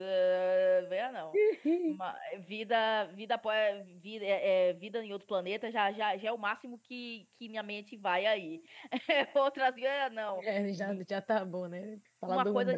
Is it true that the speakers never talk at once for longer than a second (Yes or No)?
Yes